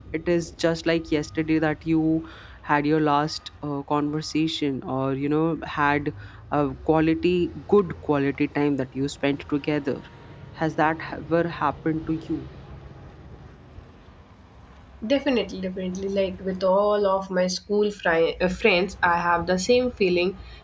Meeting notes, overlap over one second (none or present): none